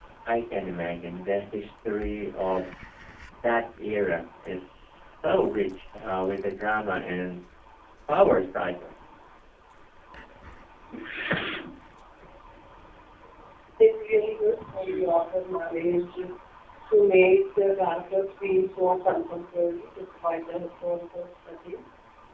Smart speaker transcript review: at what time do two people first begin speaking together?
none

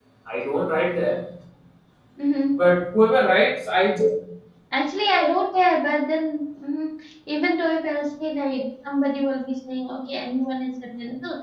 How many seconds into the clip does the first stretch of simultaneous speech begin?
none

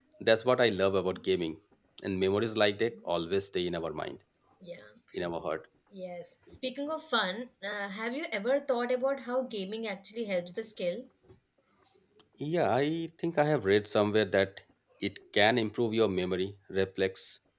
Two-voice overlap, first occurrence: none

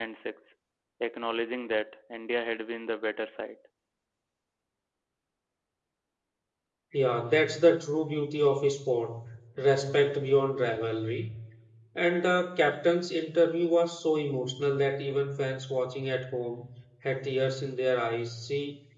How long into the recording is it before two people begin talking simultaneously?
none

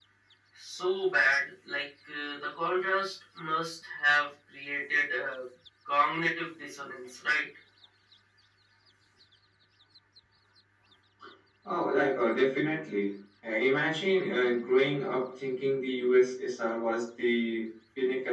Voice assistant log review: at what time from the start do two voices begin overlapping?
none

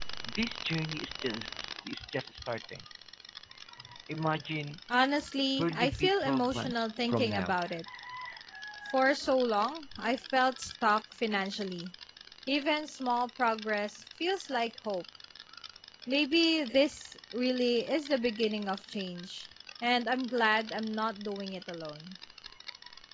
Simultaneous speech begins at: 5.6 s

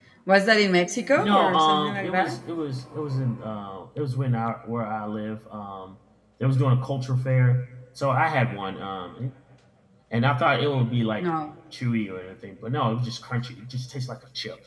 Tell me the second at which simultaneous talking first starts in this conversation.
1.2 s

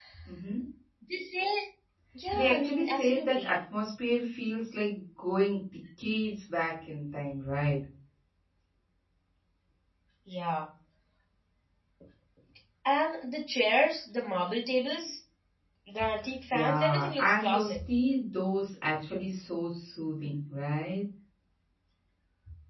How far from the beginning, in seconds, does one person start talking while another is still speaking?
2.3 s

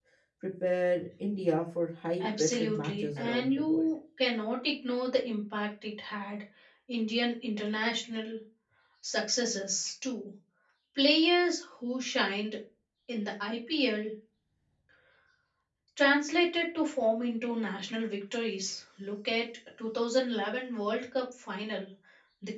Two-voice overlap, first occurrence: 2.2 s

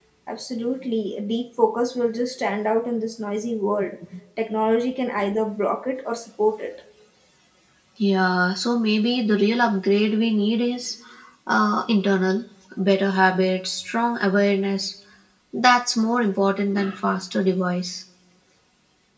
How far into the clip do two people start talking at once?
none

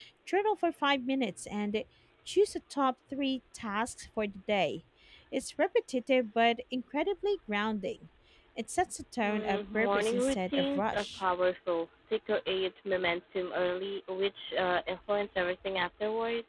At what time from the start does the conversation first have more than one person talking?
9.2 s

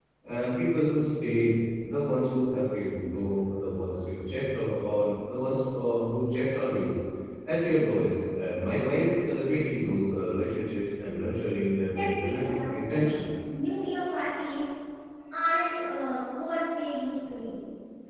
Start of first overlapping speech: 11.9 s

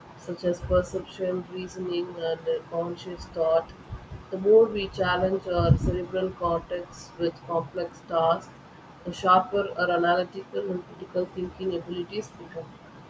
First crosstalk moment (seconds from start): none

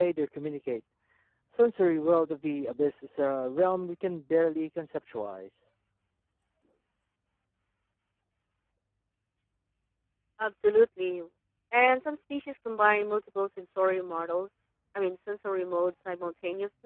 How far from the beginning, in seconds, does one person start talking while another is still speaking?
none

